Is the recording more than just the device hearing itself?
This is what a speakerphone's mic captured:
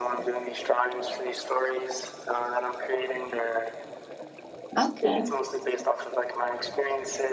Yes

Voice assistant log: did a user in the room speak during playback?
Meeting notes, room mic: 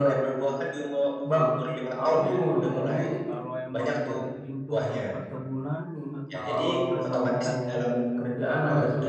Yes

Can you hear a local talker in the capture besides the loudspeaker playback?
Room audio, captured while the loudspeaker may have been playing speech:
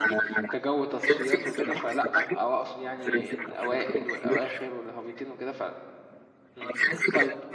Yes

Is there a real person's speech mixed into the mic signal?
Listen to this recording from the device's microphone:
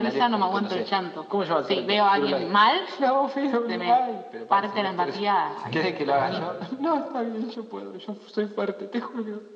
Yes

